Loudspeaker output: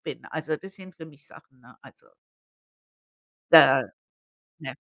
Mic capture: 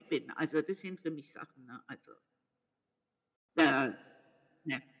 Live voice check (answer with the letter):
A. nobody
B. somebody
A